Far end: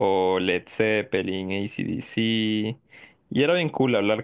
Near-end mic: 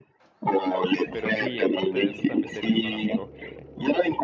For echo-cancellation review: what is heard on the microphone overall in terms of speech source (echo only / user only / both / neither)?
both